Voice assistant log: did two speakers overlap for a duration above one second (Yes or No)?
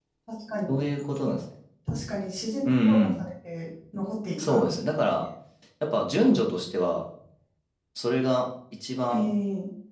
No